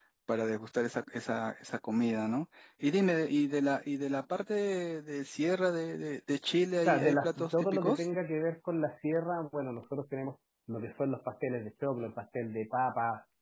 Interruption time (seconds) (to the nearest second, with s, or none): 7 s